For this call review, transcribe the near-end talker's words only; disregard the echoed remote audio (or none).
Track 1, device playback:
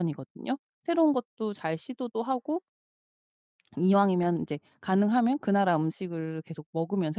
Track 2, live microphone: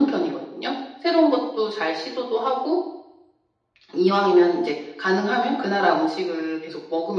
none